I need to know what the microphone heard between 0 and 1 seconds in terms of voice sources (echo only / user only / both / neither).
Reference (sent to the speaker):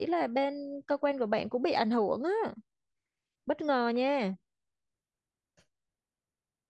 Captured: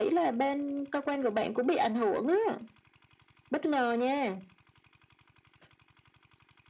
echo only